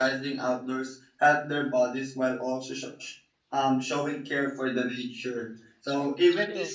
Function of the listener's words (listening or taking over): listening